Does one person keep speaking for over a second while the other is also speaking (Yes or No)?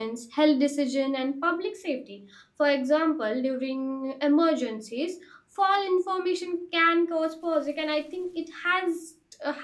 No